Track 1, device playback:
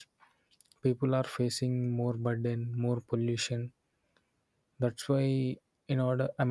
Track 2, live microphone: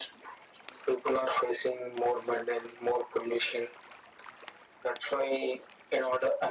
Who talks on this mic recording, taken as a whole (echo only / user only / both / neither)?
echo only